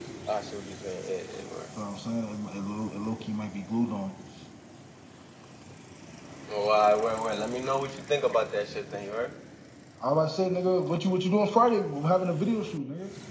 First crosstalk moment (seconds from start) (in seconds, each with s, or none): none